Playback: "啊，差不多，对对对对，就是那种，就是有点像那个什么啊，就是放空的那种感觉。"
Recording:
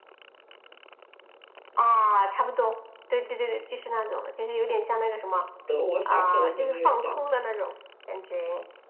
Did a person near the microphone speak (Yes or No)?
Yes